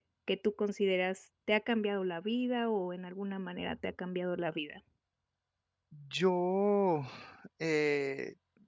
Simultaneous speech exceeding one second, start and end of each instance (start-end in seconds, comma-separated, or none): none